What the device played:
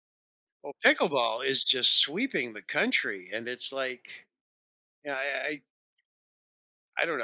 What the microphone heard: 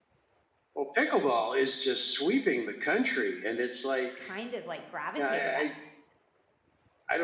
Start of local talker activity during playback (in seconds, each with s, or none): 4.1 s